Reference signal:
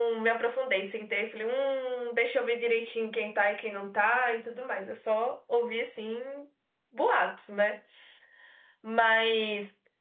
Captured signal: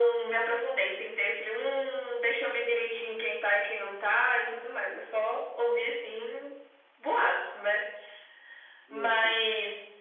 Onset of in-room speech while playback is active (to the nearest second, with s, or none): 9 s